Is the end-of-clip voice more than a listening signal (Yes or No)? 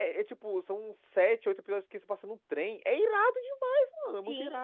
Yes